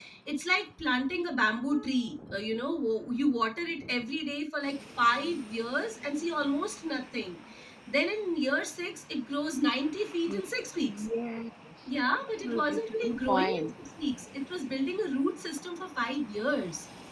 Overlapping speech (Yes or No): Yes